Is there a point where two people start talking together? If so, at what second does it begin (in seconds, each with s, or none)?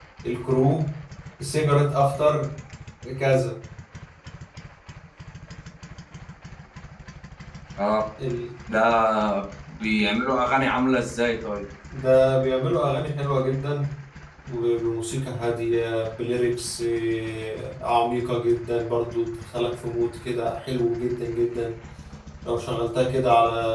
none